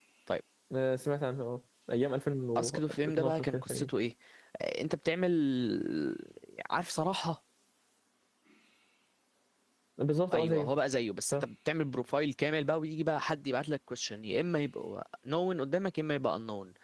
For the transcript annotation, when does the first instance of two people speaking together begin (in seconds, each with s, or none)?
2.6 s